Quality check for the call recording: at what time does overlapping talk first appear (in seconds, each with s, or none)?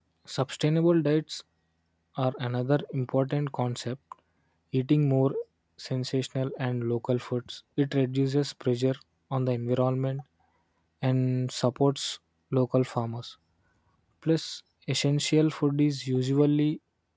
none